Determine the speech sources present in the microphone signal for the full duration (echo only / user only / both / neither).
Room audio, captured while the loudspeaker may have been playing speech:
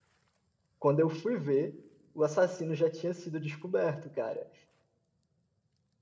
user only